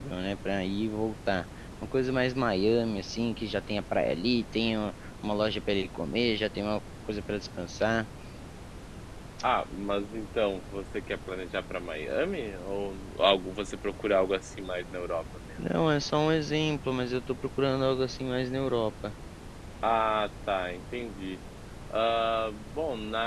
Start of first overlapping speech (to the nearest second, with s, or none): none